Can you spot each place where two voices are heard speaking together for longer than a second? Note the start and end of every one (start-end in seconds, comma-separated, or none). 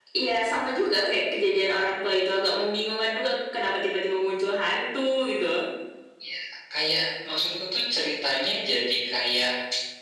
none